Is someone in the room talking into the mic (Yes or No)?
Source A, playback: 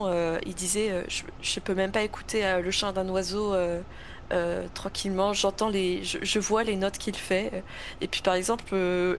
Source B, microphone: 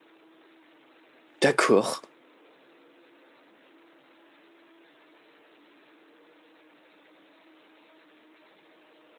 Yes